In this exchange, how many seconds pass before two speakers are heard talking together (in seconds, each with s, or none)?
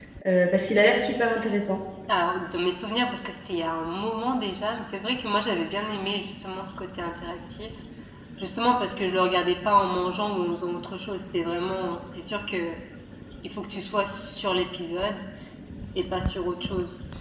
none